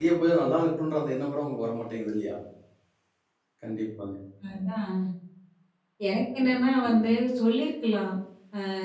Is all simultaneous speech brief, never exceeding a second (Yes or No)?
Yes